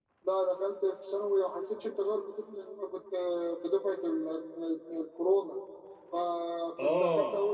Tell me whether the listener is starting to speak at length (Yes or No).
No